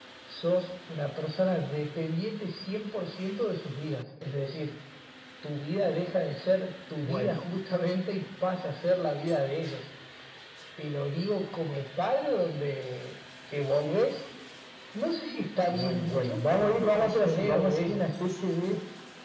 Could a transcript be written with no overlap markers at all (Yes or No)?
No